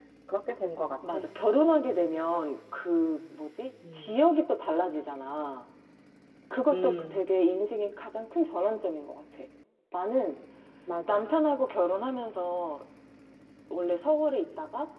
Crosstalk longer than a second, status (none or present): none